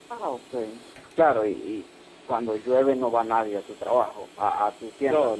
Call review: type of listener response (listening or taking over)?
taking over